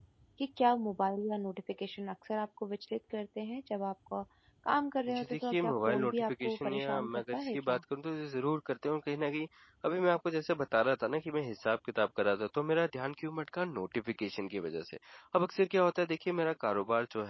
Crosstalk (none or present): present